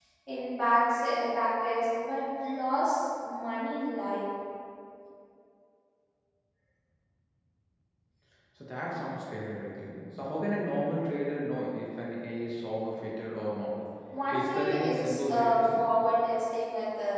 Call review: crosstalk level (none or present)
present